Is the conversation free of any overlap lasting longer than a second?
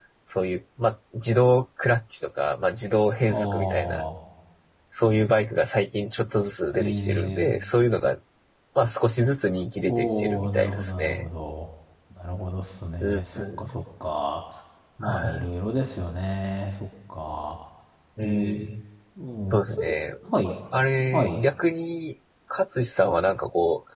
No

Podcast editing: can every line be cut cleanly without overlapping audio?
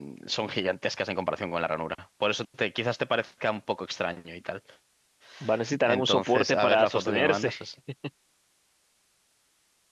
No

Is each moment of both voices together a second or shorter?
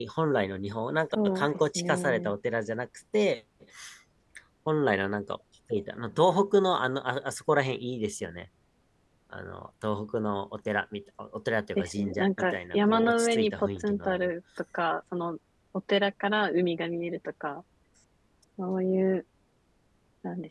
No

